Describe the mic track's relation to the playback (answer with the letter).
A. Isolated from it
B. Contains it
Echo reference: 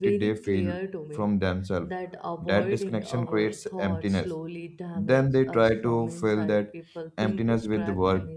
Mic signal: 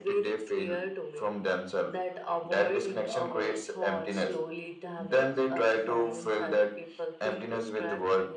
B